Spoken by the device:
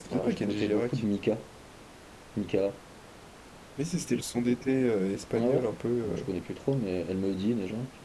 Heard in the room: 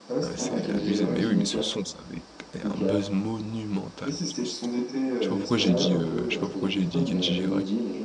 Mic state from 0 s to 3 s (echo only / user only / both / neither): both